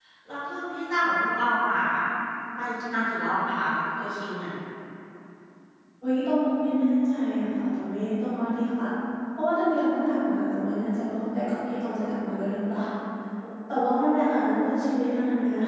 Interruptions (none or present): none